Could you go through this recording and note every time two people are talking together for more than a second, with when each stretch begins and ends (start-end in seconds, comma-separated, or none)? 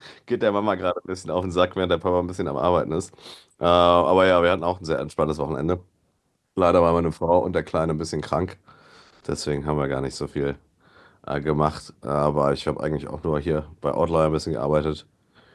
none